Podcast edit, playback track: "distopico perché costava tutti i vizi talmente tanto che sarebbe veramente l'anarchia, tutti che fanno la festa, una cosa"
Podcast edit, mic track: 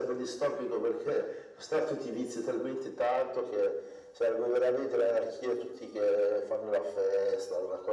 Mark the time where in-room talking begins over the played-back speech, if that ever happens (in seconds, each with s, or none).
none